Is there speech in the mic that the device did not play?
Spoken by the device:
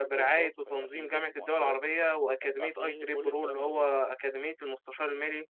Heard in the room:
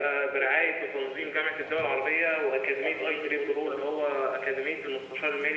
No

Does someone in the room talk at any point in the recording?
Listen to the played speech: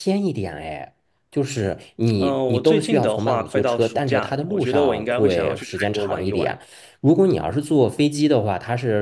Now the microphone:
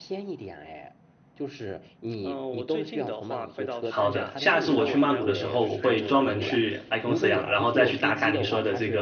Yes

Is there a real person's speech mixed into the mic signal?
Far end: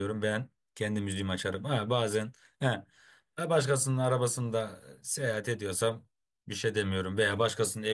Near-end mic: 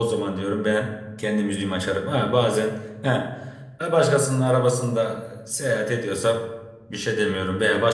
No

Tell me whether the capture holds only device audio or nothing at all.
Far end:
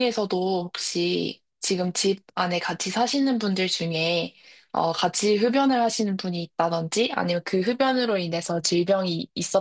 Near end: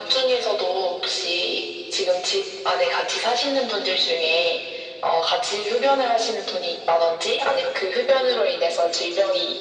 Yes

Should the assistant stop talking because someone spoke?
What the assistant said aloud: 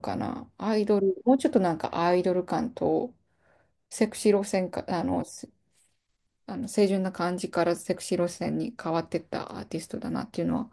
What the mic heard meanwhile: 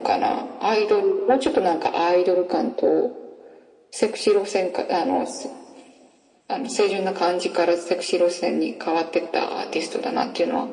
No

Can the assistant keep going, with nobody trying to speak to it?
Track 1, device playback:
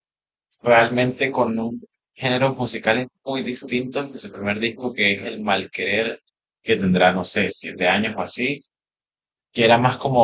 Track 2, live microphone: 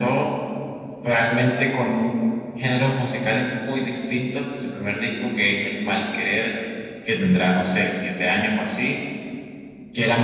Yes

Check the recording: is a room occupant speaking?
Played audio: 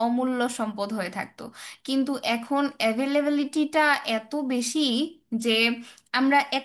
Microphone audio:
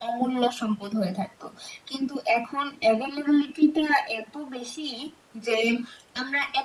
No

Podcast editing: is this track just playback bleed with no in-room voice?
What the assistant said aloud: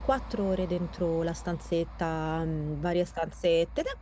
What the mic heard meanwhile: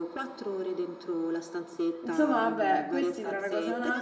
No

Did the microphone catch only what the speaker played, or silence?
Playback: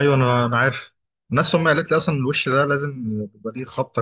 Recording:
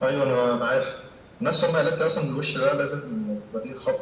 Yes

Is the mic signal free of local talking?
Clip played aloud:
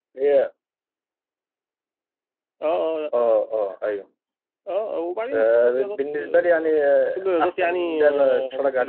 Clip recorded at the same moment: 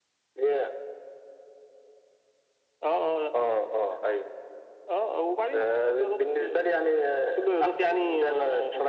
Yes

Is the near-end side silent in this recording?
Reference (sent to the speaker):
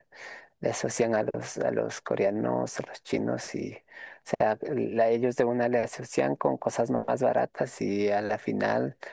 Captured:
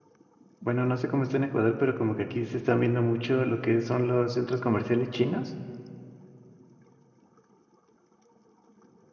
No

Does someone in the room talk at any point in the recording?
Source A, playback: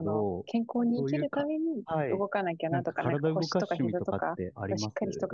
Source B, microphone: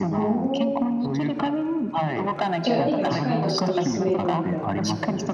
Yes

